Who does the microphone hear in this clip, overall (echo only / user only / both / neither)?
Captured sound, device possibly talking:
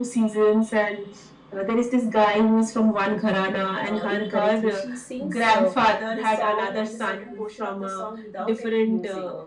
both